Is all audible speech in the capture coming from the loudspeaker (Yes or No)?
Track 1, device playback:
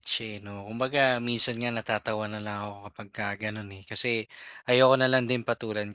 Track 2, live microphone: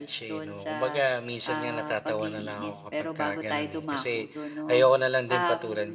No